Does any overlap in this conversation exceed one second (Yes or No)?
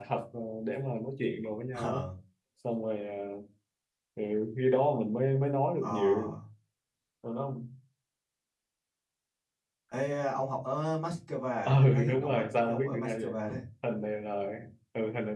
Yes